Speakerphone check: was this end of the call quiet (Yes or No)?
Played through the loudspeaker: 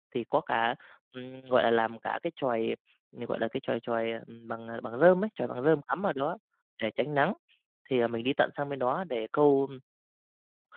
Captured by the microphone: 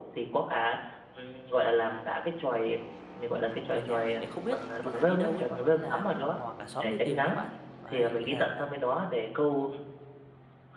No